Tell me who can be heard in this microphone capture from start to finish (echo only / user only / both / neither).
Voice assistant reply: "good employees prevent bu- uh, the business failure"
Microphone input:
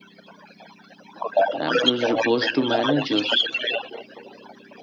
both